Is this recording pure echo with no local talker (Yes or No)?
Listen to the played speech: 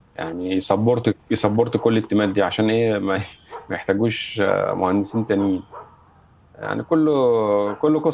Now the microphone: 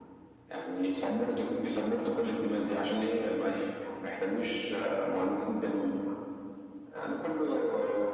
Yes